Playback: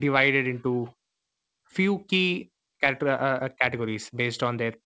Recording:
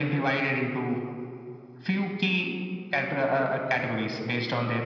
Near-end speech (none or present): none